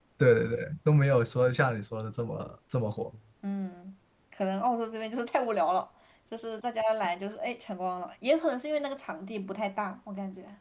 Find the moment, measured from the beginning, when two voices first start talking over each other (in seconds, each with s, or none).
none